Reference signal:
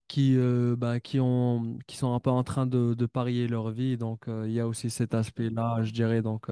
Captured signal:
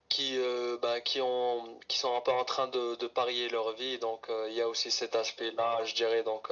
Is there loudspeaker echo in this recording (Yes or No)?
Yes